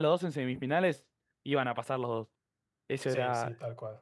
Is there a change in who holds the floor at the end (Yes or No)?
Yes